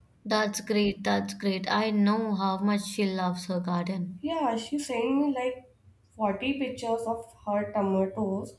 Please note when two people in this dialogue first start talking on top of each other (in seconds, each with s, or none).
none